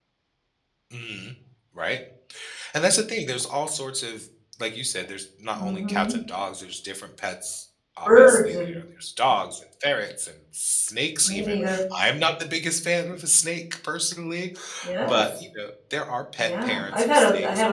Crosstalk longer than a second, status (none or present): present